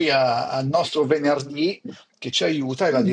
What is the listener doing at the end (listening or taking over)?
listening